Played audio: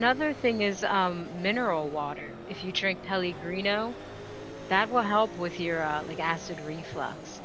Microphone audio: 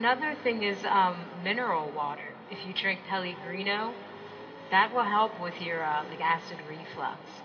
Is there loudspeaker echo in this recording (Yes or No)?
Yes